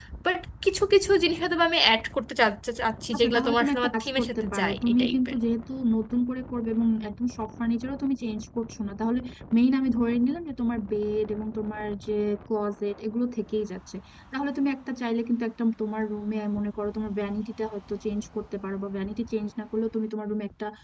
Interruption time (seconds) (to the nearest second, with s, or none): 3 s